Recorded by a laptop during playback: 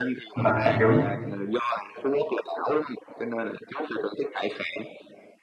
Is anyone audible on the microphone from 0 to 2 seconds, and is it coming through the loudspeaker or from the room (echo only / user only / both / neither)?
both